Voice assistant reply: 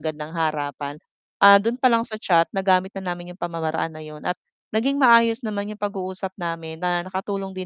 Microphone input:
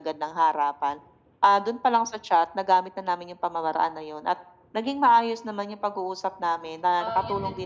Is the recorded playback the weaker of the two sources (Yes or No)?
No